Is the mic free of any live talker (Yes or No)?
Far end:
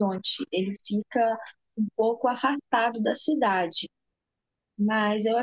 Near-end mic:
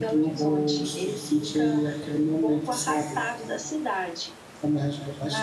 No